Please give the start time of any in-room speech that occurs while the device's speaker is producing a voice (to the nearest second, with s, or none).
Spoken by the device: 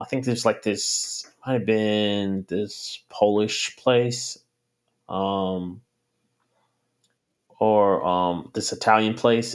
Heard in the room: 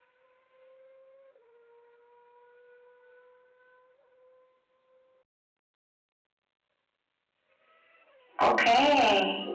8 s